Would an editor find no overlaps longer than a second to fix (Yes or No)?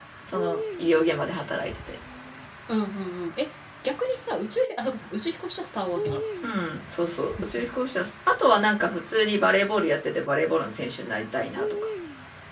Yes